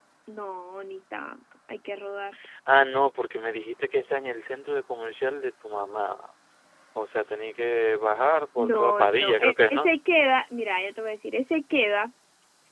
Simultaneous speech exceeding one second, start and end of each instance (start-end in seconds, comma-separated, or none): 8.6-9.9